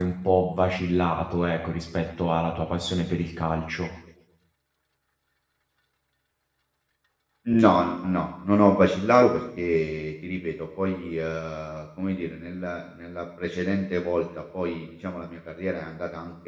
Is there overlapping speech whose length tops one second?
No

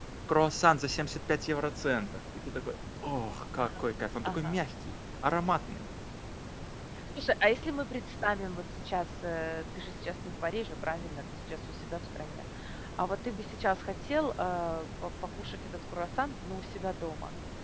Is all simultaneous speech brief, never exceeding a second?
Yes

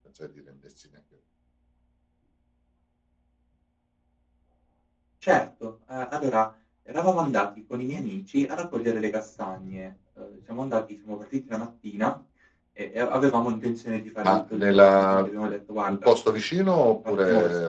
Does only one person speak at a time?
No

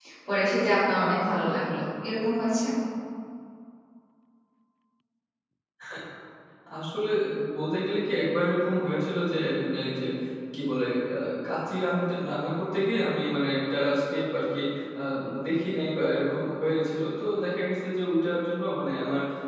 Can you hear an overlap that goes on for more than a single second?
No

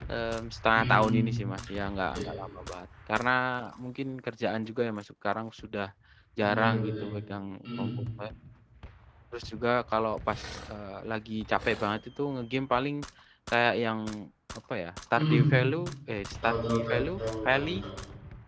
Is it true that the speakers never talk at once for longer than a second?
No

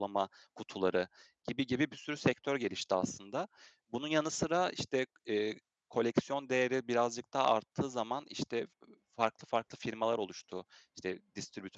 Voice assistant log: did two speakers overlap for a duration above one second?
No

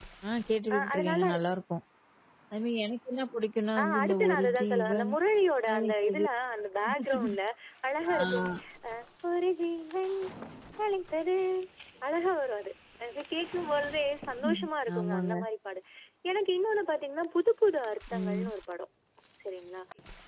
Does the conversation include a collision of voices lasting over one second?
Yes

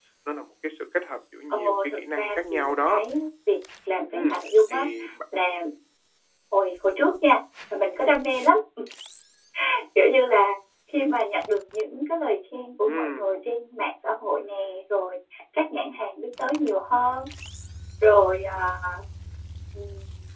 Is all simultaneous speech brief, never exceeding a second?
No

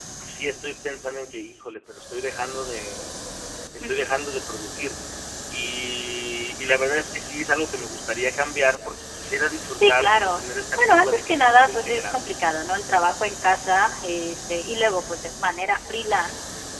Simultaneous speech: Yes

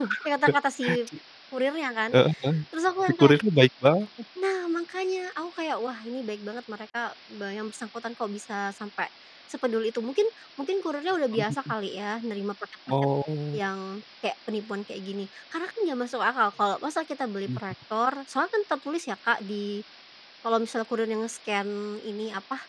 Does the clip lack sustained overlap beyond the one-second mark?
Yes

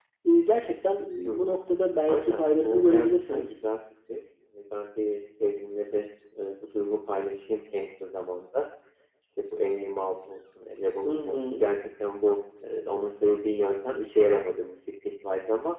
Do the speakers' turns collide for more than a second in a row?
Yes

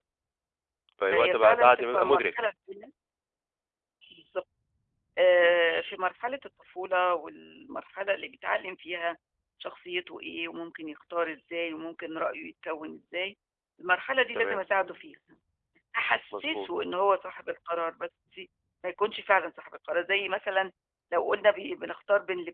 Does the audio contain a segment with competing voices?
Yes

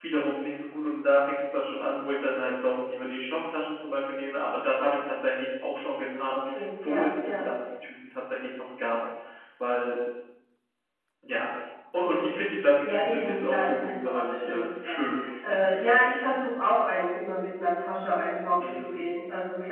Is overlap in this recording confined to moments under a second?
No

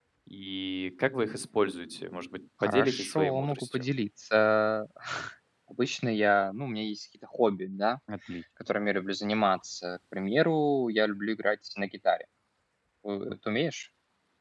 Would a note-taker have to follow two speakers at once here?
Yes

